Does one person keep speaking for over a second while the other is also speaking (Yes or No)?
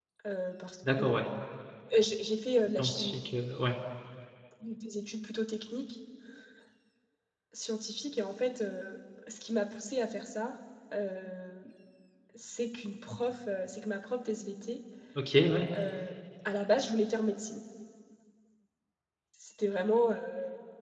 No